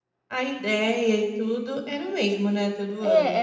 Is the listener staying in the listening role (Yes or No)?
No